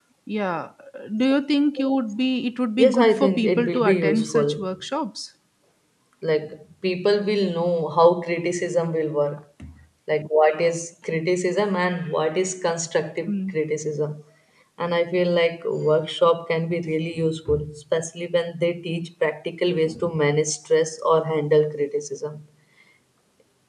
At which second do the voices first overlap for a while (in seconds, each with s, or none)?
2.8 s